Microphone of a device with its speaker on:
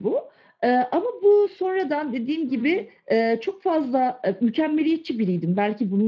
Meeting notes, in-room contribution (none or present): present